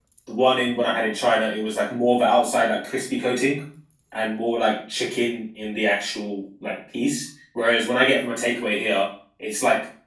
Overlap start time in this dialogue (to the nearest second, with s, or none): none